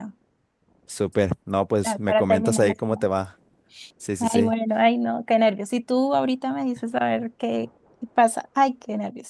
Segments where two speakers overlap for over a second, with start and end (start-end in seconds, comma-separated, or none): 1.8-3.1